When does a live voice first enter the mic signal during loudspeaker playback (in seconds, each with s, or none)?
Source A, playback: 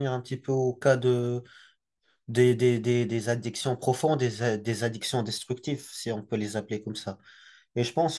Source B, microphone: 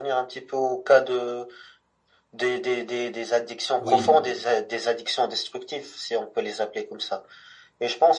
3.8 s